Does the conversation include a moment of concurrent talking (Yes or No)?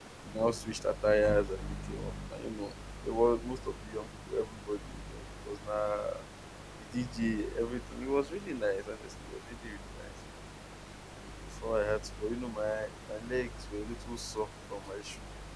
No